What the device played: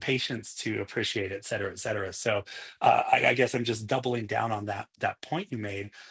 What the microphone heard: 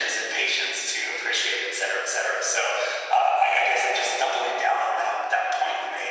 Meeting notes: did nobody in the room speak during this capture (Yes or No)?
Yes